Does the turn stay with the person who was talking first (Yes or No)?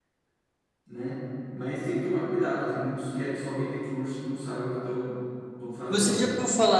No